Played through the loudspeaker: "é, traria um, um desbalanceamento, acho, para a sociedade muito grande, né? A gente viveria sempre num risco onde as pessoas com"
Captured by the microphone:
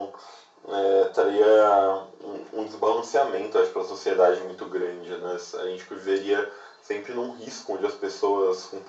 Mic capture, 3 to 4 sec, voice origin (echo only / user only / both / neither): echo only